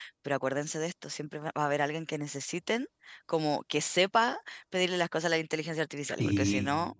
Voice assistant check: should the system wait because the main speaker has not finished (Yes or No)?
Yes